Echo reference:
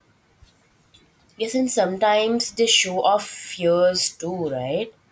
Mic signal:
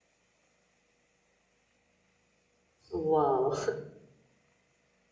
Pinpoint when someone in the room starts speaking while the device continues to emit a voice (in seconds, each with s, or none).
2.9 s